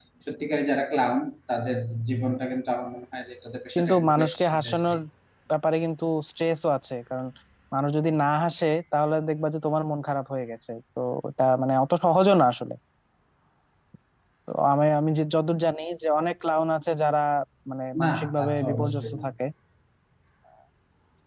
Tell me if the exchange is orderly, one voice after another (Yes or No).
No